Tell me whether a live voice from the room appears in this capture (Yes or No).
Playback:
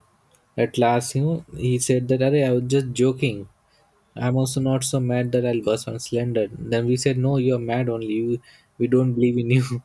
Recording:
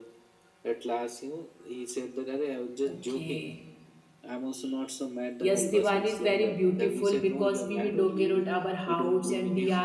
Yes